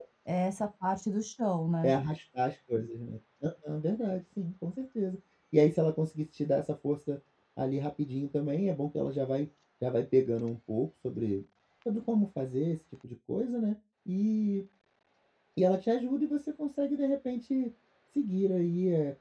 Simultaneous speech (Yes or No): No